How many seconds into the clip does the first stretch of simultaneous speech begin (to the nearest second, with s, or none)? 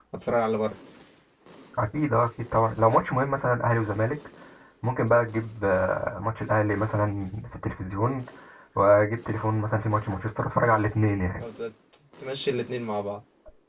none